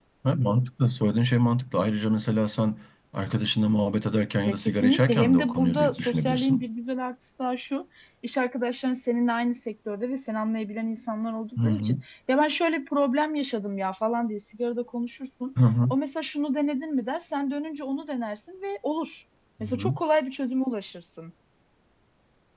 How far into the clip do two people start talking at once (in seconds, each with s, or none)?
4.5 s